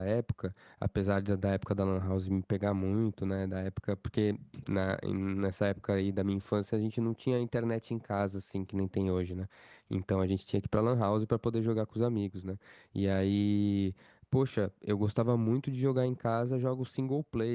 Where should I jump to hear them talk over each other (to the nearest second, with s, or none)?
none